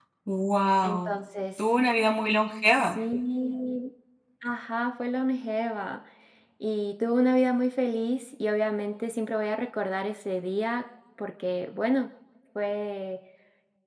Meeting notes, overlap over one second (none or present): none